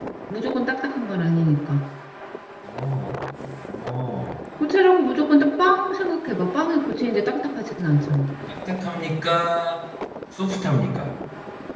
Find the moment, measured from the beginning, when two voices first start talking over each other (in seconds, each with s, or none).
none